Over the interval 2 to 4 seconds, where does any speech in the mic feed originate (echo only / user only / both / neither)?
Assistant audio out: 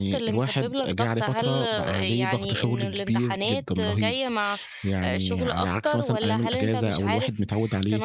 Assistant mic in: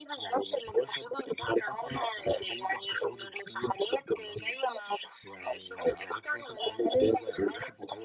echo only